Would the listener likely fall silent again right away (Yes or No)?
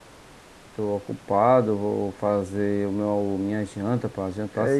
No